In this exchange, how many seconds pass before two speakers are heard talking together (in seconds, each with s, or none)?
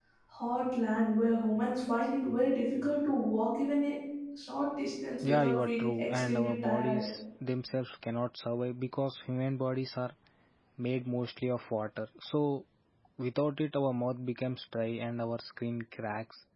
5.2 s